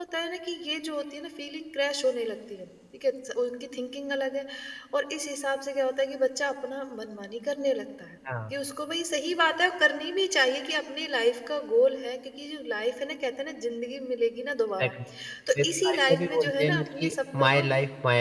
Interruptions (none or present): present